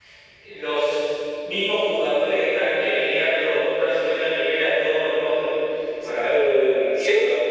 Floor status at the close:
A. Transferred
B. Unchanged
A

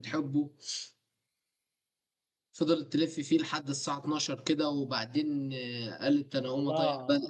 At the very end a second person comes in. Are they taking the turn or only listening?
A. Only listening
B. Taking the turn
B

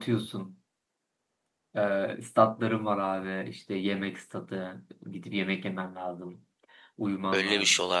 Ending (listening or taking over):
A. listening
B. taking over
B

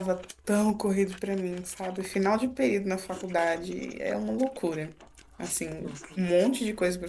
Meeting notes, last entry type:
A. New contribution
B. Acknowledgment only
B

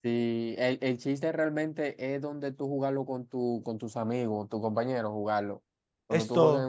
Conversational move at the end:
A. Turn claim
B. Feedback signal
B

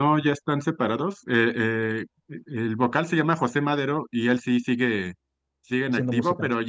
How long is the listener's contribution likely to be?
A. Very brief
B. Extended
A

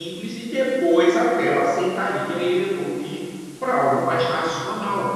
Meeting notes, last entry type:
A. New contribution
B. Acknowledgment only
B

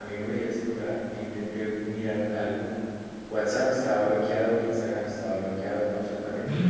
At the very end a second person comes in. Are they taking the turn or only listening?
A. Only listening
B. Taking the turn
B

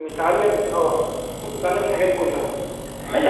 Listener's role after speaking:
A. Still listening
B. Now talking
B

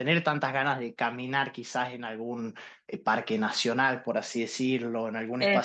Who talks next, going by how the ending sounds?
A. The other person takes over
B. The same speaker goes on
B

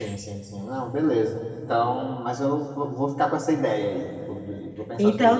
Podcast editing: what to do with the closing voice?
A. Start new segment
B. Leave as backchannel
A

